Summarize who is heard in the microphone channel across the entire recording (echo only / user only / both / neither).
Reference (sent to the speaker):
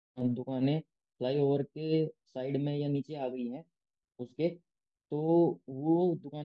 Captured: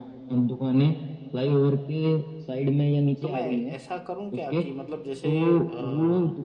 both